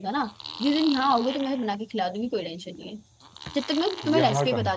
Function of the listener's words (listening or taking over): listening